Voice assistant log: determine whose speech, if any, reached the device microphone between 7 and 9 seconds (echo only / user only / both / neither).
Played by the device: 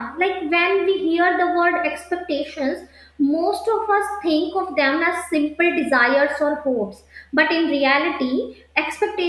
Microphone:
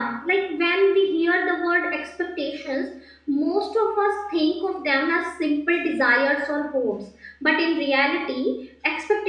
echo only